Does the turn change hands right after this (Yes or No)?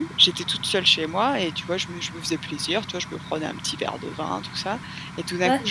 No